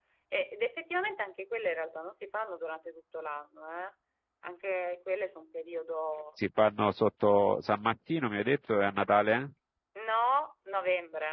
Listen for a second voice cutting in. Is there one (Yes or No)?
No